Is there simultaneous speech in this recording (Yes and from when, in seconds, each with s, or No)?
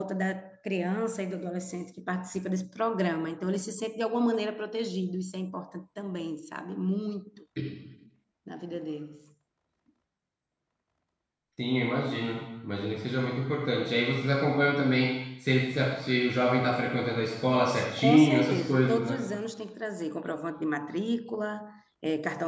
Yes, from 18.0 s